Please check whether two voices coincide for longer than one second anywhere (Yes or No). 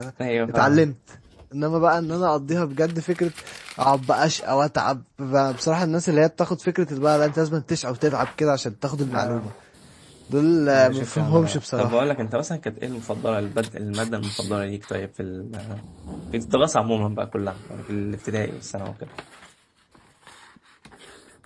Yes